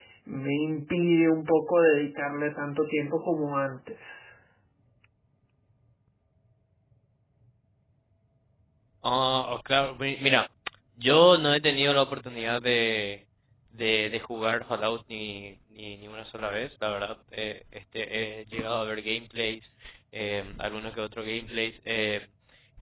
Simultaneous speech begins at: none

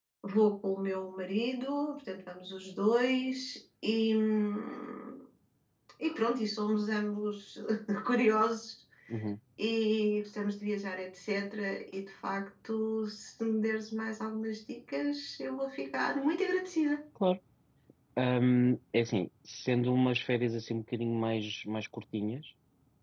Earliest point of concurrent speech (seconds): none

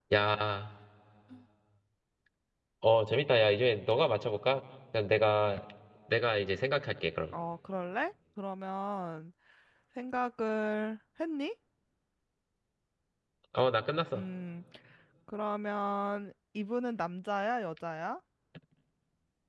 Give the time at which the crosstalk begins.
none

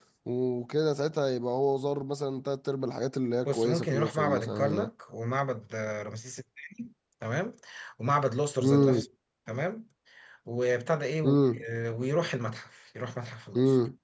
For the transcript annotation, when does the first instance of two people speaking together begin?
3.4 s

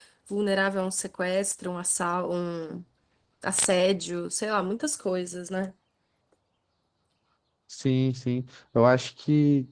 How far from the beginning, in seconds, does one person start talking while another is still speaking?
none

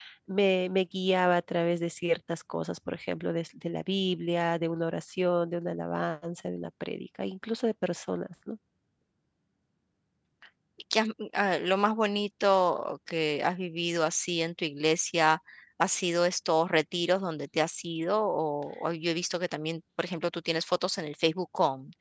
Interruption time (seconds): none

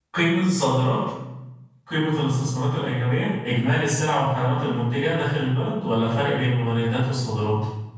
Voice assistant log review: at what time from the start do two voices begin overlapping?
none

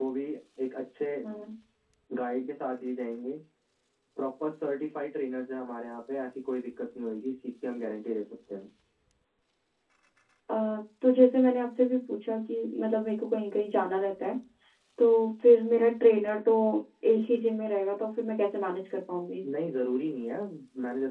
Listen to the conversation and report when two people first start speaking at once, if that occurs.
none

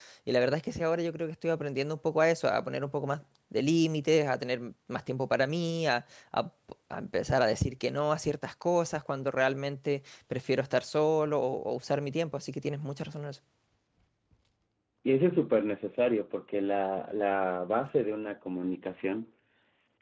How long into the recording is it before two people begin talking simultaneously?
none

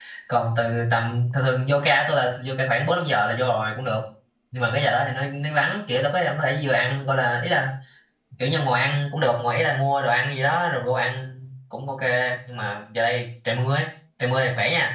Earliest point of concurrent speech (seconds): none

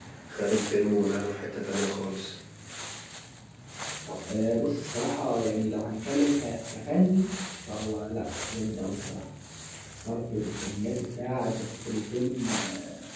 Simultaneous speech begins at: none

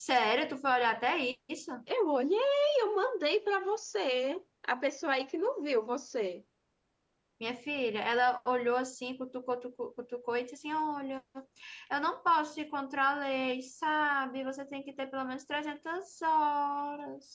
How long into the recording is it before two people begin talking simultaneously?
none

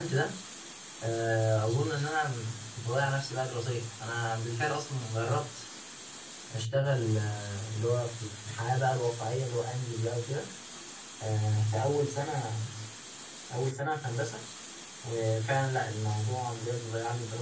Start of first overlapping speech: none

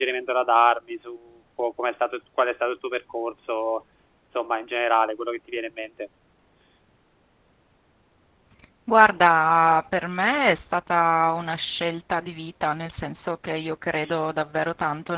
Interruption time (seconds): none

